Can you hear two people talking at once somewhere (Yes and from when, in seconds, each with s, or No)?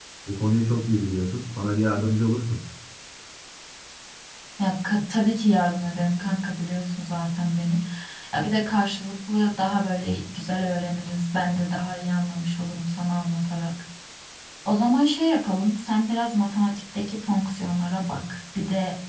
No